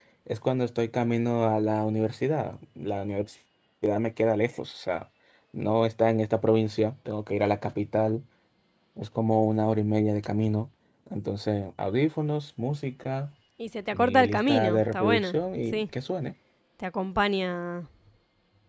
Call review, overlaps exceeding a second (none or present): present